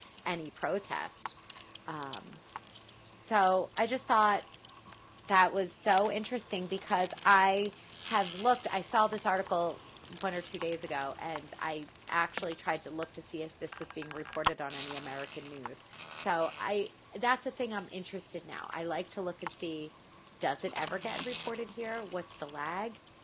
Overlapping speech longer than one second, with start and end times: none

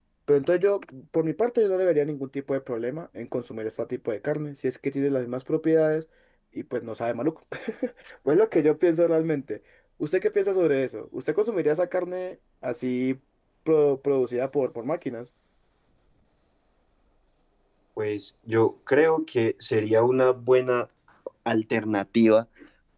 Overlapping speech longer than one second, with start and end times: none

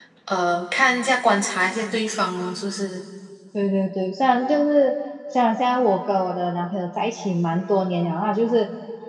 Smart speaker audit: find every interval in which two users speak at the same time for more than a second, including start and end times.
none

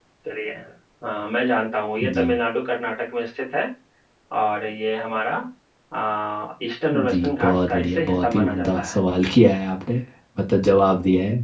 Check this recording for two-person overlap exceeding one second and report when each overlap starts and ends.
6.9-9.0

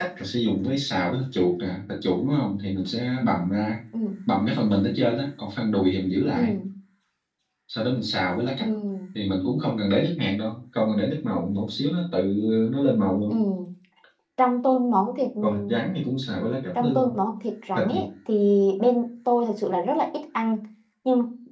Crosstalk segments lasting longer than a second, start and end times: none

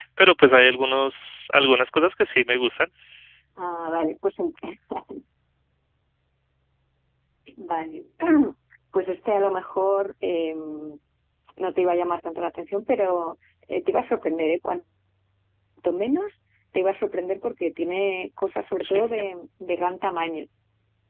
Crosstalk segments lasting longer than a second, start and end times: none

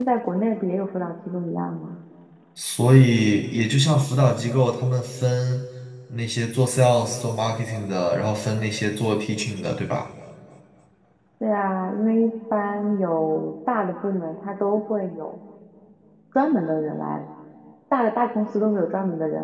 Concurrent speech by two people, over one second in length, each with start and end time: none

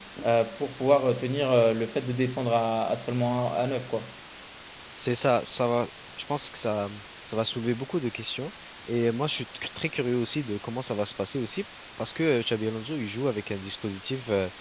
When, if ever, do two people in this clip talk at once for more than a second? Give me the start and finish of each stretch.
none

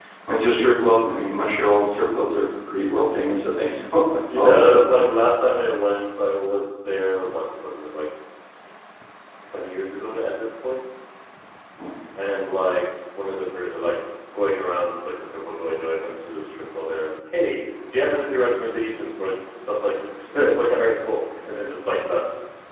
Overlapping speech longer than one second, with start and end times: none

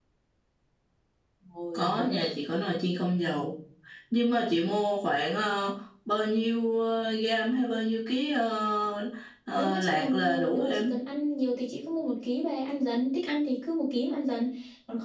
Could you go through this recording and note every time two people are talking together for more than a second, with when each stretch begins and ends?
9.5-10.9

